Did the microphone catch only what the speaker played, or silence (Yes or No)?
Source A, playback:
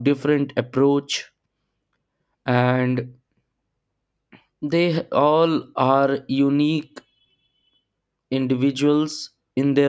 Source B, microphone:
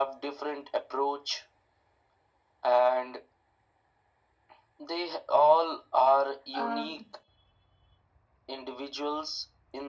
No